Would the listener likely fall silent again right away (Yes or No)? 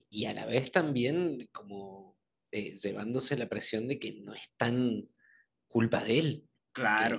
Yes